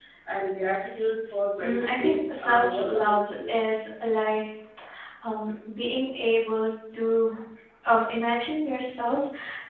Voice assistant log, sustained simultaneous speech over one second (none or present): present